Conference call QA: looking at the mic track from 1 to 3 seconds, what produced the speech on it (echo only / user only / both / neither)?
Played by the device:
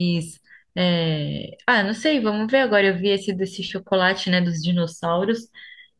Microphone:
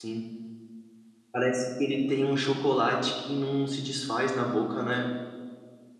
user only